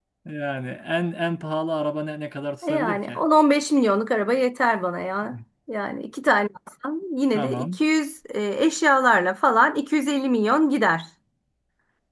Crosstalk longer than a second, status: none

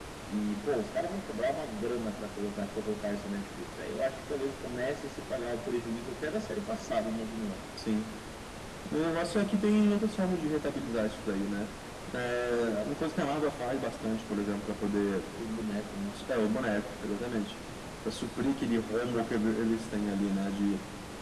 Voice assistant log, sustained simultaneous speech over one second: none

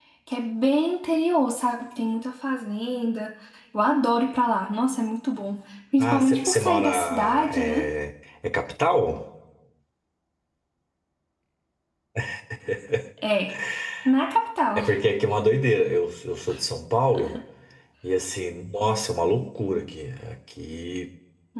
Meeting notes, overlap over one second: present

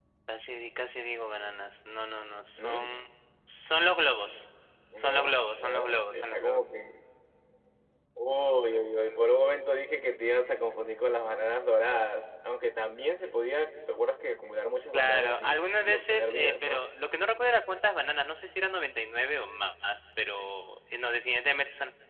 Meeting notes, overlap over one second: present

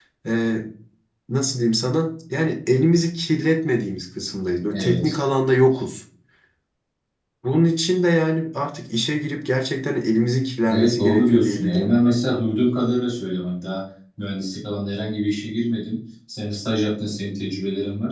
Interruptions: present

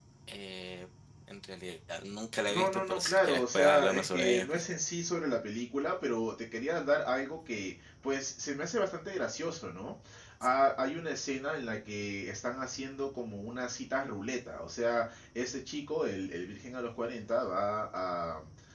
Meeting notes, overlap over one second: present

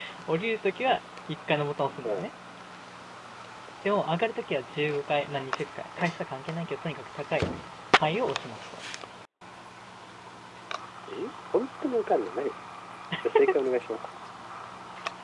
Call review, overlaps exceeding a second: none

